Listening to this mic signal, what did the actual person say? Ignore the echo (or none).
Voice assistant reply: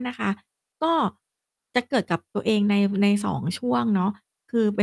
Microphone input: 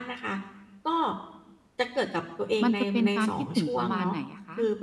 มันจะเป็นการคิดถึงประมาณไหนอะคะ?